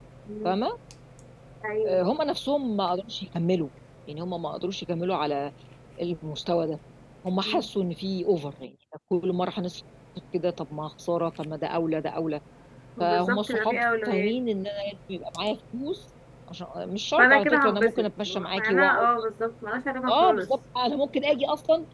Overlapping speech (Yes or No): Yes